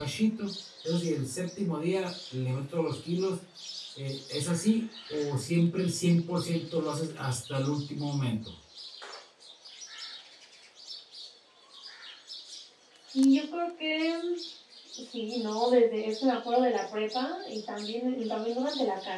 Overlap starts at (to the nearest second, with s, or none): none